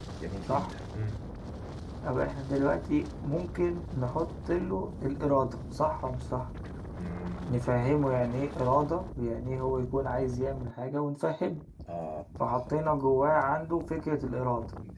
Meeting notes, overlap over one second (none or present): none